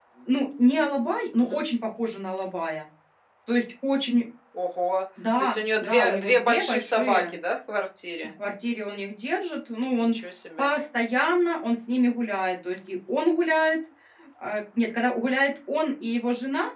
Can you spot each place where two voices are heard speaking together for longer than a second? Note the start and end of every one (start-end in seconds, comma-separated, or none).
5.4-7.3